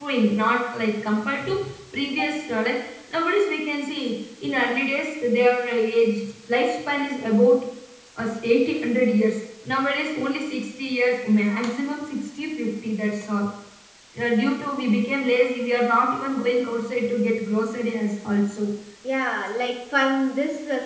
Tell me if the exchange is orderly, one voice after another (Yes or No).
Yes